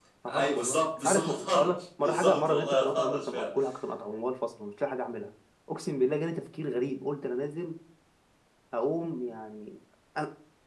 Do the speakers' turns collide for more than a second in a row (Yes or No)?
Yes